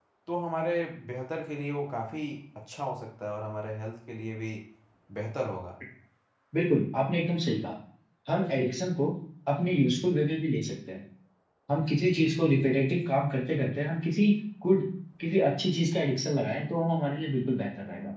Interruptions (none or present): none